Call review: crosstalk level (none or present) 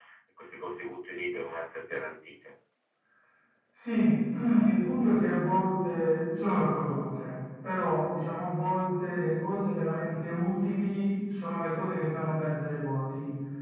none